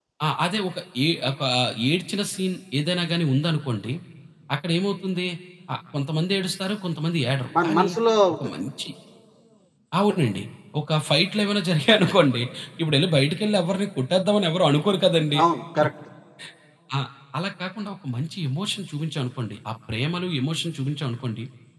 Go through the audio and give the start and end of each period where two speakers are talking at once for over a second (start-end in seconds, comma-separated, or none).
none